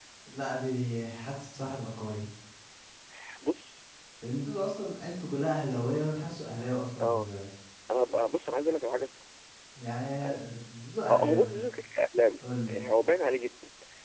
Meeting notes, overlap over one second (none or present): none